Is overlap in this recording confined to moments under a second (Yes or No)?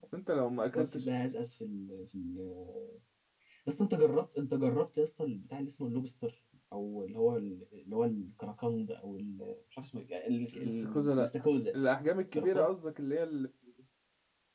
No